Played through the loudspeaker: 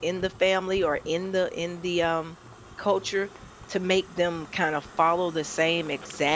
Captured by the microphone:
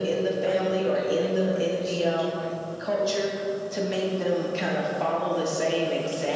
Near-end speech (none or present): present